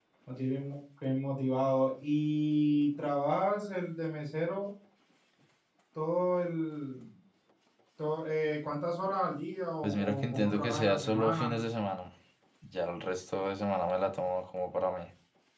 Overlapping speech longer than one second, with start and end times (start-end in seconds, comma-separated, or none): 9.8-11.6